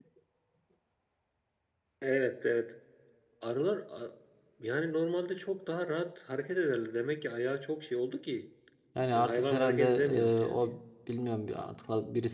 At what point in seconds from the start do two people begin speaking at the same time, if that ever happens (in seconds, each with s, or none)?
9.1 s